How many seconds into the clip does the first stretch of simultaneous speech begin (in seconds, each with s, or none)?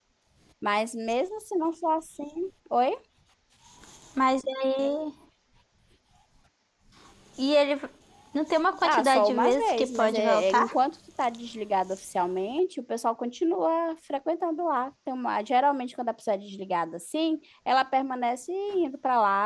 8.8 s